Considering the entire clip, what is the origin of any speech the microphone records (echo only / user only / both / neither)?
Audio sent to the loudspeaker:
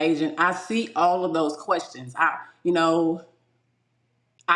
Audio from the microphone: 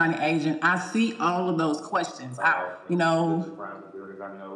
both